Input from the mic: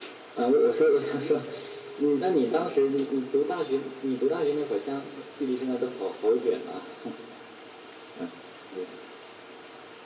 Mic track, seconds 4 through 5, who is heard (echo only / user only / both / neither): echo only